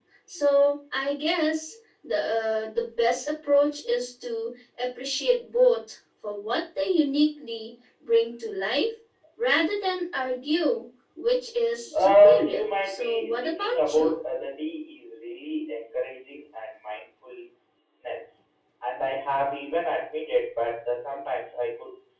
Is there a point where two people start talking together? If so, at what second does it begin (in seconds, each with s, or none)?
11.9 s